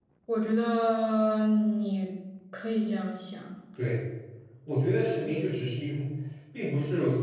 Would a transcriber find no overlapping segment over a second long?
Yes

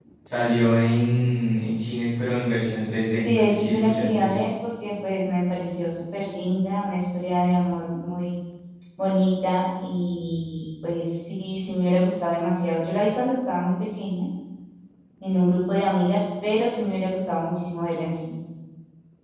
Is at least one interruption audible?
Yes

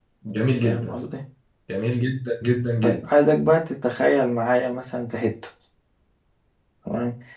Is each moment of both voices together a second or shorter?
Yes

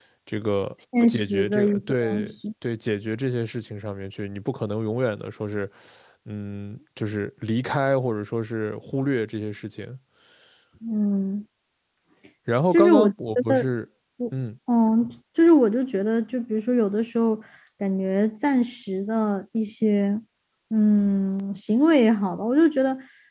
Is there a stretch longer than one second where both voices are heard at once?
Yes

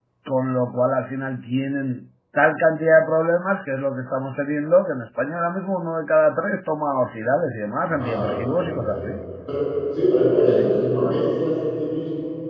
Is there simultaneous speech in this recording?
Yes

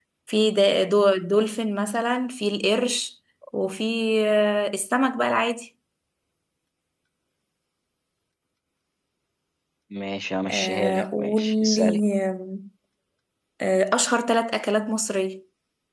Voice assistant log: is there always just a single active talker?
No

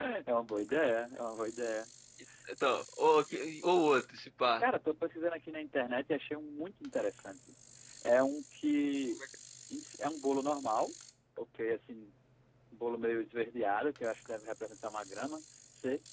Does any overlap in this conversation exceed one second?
No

